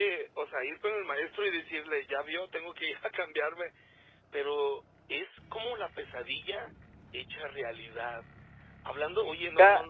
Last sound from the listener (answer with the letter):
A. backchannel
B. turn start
A